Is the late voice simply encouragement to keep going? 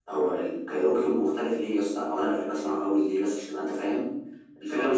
Yes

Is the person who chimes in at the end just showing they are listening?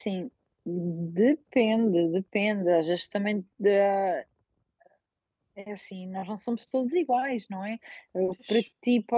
Yes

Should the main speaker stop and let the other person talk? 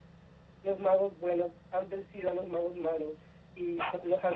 No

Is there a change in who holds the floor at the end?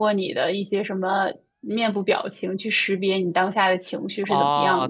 Yes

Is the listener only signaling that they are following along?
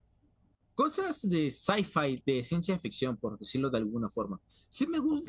Yes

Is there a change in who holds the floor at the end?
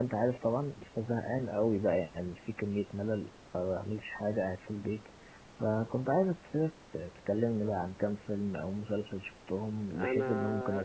Yes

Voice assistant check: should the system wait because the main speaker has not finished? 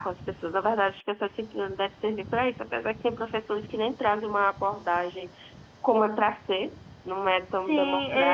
No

